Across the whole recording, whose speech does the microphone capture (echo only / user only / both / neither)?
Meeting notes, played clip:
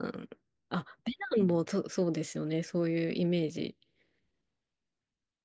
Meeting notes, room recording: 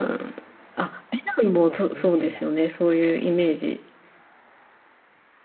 both